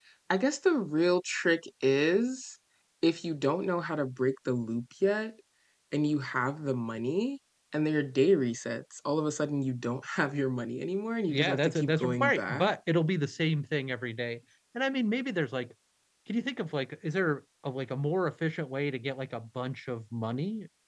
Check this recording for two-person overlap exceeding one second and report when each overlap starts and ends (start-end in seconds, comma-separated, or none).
11.3-12.7